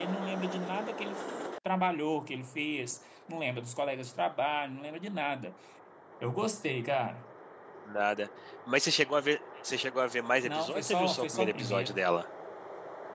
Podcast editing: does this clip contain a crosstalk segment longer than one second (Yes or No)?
Yes